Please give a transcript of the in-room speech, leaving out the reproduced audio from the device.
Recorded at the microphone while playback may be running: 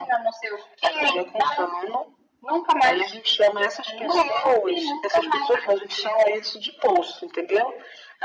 none

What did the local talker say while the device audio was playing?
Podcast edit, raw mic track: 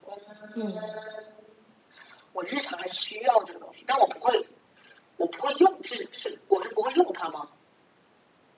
嗯

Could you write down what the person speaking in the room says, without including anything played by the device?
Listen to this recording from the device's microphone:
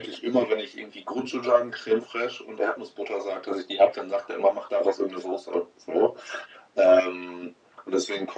none

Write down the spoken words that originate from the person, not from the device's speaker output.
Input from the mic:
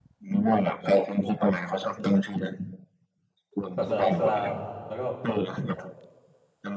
ศาสนาอิสลามแล้วก็

